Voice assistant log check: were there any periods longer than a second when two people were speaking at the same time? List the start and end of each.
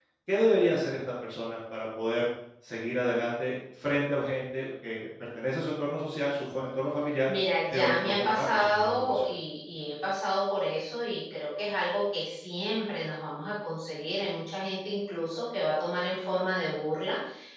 7.7-9.3

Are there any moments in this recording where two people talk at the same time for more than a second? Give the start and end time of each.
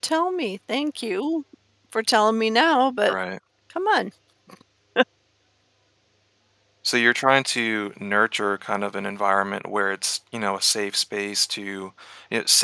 none

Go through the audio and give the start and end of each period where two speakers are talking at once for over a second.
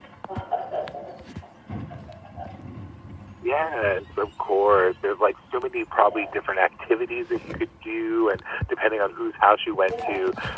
none

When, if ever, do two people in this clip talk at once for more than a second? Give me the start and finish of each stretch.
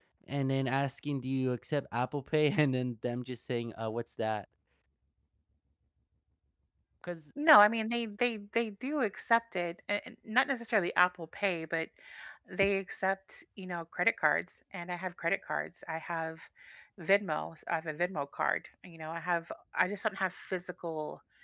none

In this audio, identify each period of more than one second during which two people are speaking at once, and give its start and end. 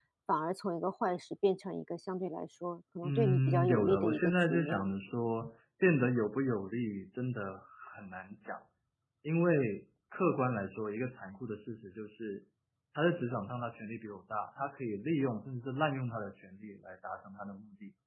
3.0-4.9

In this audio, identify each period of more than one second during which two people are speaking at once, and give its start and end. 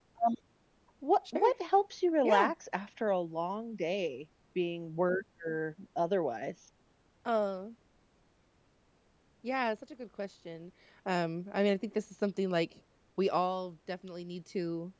none

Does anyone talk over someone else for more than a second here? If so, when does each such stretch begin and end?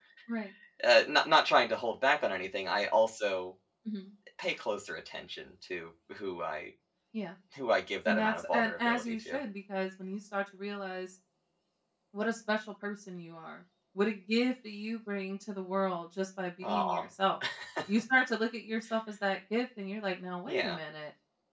8.1-9.4

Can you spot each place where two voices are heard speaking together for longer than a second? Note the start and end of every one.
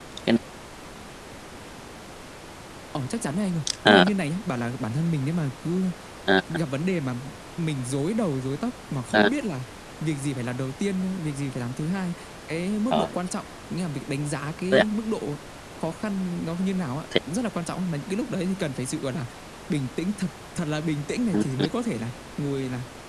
none

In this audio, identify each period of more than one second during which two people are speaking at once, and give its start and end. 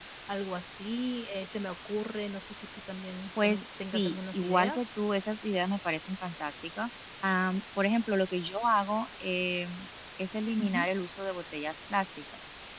3.4-5.0

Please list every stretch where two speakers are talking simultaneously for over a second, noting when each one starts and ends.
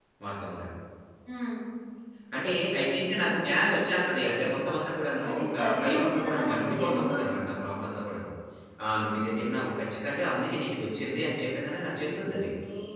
5.3-7.3

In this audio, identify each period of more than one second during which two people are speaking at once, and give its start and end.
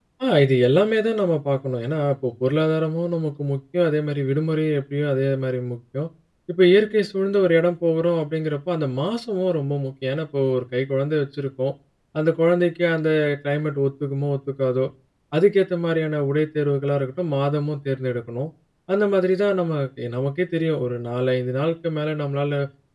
none

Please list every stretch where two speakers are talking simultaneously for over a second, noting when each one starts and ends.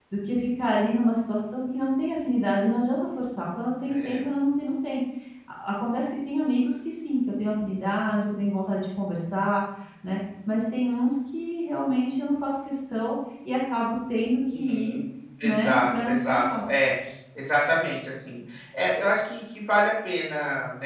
15.4-16.6

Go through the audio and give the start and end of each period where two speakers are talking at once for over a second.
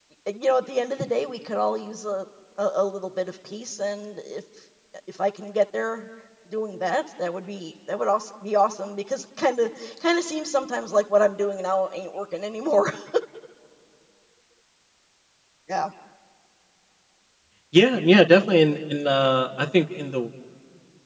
none

